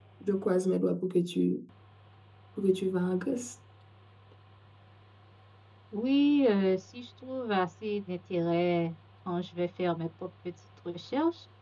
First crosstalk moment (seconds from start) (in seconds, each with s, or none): none